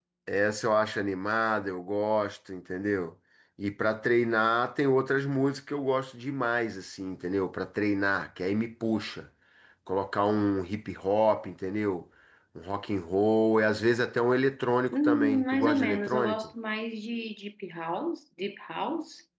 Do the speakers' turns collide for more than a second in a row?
Yes, from 14.9 s

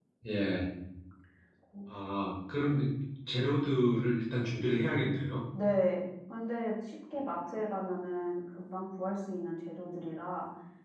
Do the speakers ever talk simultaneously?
No

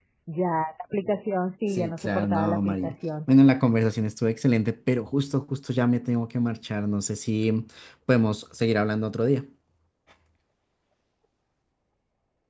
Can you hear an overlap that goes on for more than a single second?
Yes, from 1.7 s

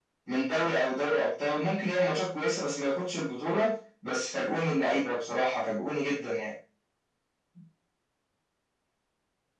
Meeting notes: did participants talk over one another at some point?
No

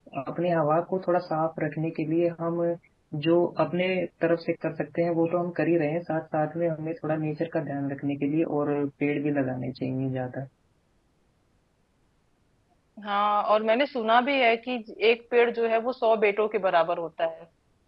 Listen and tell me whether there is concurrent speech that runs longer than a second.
No

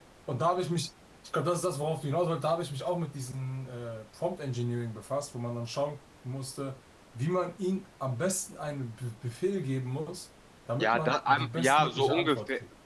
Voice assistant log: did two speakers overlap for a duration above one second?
Yes, from 10.8 s

